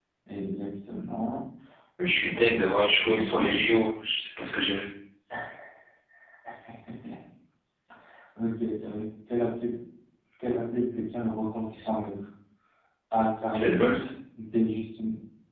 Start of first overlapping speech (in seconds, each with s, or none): 2.0 s